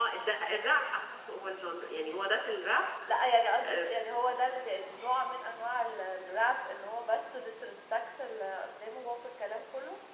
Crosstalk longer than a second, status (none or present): none